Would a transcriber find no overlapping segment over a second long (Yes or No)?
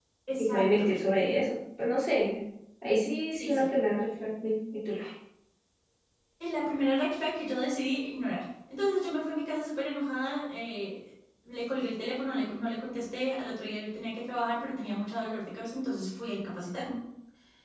Yes